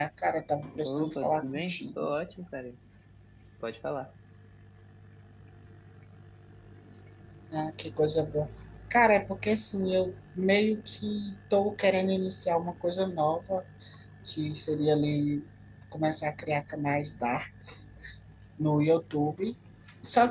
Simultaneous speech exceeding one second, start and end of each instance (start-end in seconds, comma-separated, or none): 0.8-2.1